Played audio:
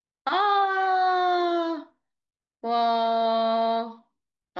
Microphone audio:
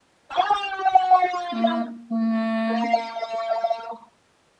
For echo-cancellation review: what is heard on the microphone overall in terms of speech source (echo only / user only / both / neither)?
both